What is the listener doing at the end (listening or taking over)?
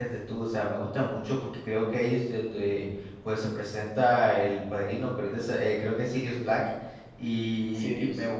listening